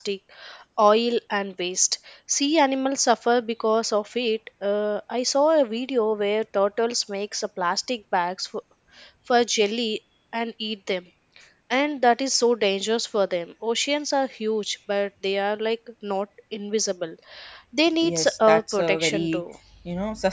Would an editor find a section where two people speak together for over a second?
Yes, from 18.0 s

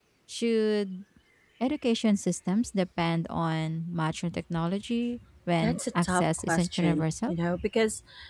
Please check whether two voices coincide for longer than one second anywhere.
Yes, from 5.6 s

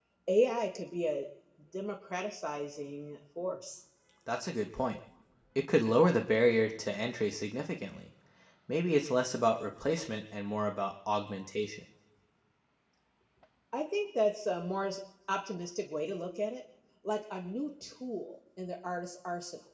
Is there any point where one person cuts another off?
No

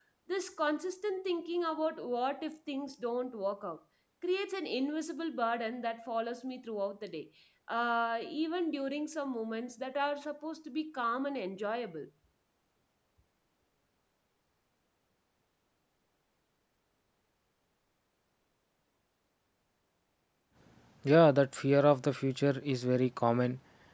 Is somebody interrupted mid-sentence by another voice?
No

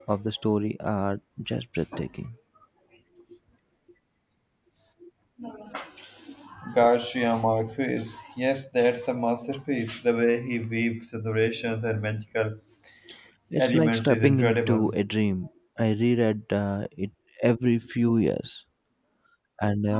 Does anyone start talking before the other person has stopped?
Yes, from 13.6 s

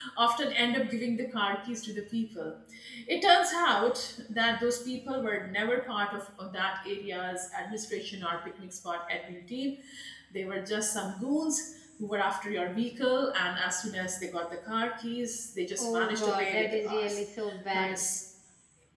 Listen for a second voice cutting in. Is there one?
Yes, from 15.8 s

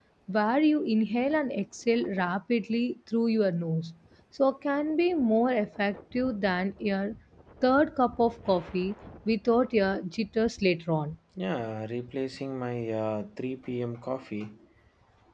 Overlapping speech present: No

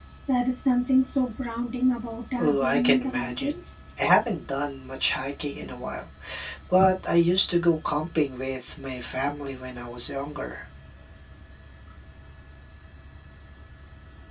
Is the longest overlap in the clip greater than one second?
Yes, from 2.4 s

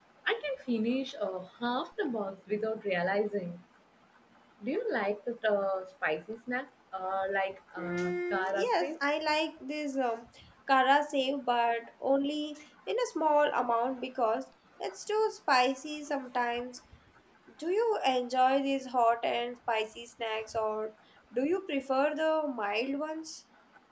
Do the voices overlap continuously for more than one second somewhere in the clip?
Yes, from 7.8 s

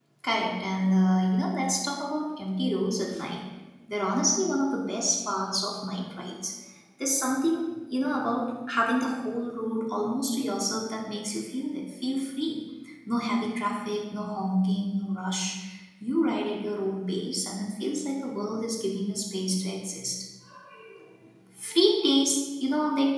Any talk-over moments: No

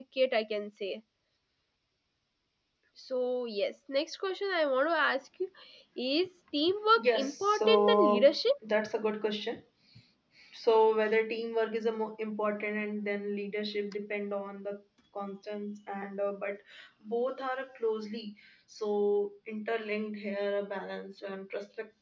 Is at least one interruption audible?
Yes, from 7.0 s

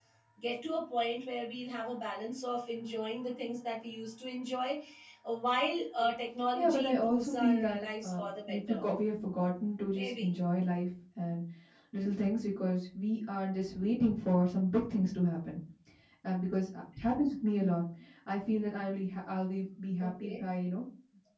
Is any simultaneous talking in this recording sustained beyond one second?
Yes, from 6.6 s

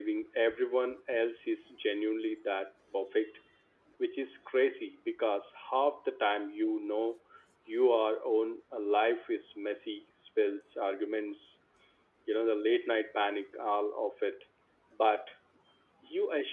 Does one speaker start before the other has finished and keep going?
No

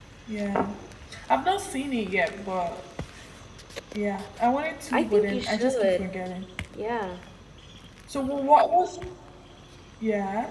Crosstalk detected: Yes, from 4.9 s

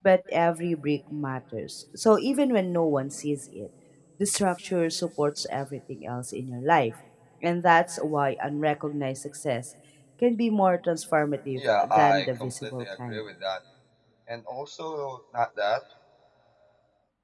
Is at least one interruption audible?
Yes, from 11.6 s

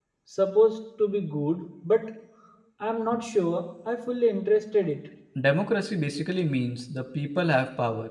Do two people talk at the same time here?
No

